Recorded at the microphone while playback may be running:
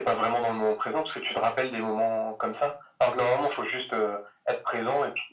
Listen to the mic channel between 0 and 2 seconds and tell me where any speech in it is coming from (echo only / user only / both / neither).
echo only